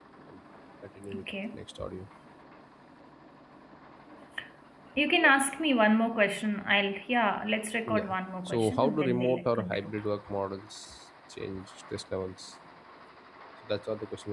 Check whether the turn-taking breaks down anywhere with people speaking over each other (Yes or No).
Yes